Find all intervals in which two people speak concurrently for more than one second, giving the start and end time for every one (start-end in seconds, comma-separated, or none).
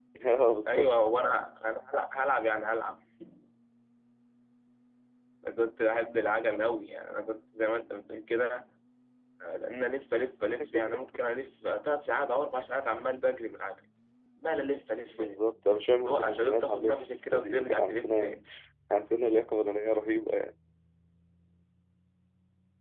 16.1-18.4